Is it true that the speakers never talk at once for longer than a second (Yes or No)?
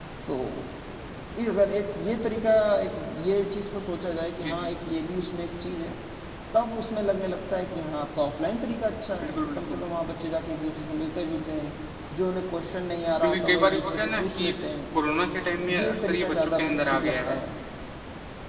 No